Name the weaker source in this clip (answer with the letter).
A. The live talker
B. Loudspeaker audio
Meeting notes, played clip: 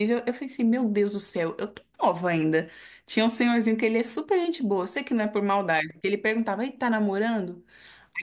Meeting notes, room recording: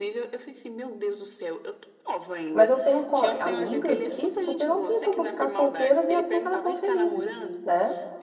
B